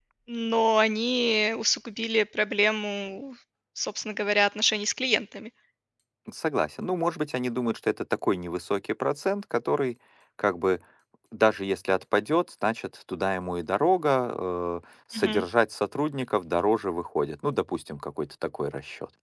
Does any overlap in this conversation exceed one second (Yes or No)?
No